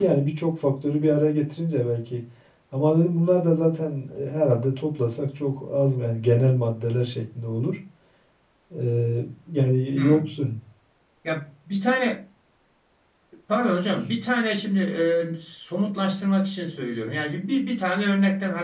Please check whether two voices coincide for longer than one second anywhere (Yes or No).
No